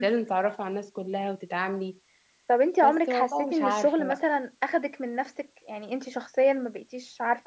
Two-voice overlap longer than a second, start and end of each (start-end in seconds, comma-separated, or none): 2.8-4.2